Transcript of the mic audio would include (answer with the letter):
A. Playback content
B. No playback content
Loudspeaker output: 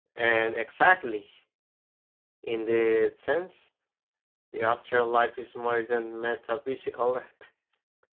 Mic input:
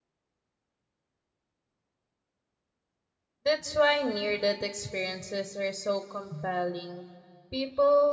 B